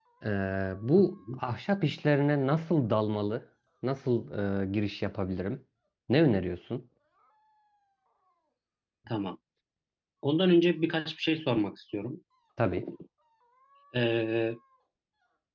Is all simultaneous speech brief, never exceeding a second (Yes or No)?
Yes